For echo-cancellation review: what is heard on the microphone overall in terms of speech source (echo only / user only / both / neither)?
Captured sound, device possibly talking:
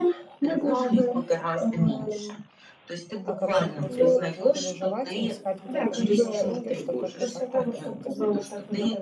both